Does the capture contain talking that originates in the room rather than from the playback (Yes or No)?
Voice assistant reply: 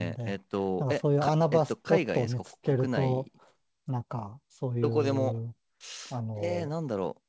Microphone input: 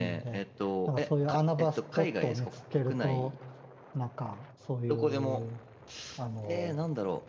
No